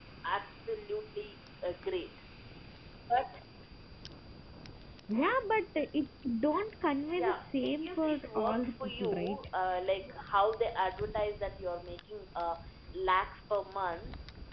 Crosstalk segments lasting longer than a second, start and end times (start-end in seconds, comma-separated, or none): 7.1-9.4